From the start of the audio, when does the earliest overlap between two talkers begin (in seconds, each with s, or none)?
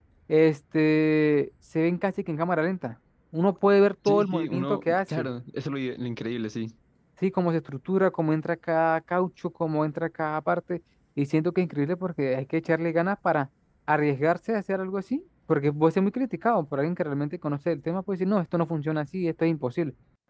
4.0 s